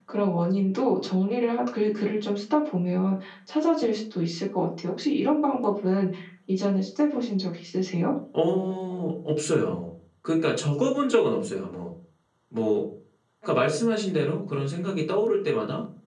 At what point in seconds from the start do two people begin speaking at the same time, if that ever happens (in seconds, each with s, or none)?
none